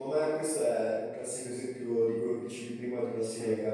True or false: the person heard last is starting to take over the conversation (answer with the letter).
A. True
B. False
B